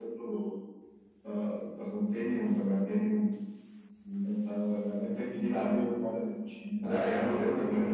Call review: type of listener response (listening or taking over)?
taking over